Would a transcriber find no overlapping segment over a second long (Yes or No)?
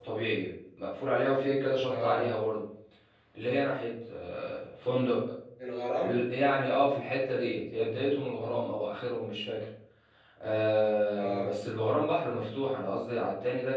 Yes